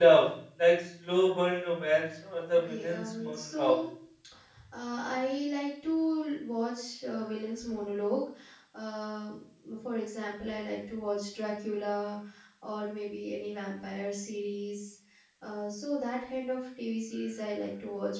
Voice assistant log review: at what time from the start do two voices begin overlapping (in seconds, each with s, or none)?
2.5 s